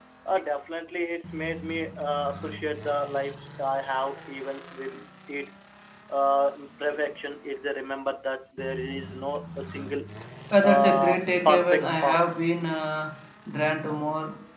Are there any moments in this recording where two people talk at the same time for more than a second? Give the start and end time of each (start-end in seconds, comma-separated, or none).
10.6-12.2